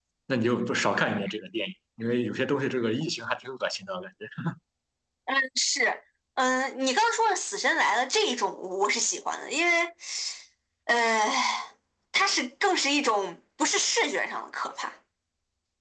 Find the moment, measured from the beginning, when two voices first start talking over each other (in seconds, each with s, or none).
none